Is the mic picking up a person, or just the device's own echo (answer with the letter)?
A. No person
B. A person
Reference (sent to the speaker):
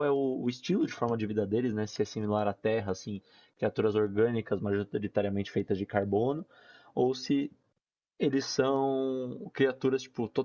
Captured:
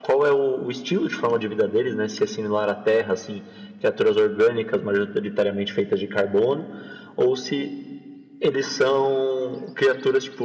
A